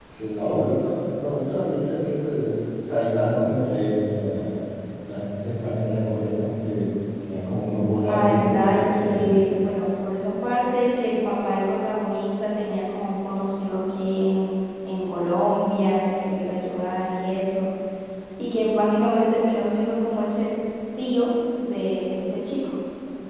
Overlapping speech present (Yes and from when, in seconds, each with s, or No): Yes, from 8.1 s